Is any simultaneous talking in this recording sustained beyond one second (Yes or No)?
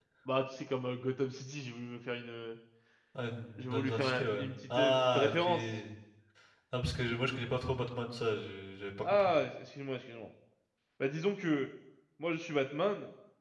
Yes